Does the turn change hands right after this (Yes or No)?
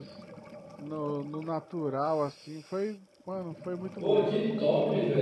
Yes